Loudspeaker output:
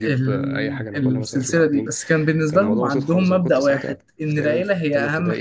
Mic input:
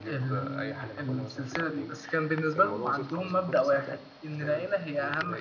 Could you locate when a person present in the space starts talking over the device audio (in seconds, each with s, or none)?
none